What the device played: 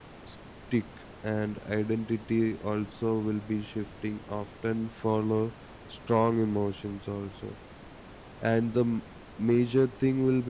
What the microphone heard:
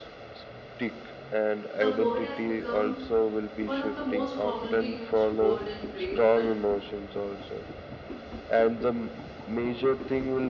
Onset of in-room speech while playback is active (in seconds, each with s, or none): 1.7 s